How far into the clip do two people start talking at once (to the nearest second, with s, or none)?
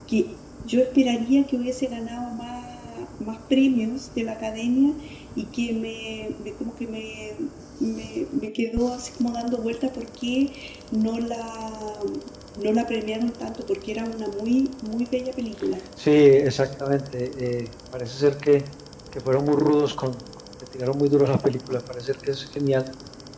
none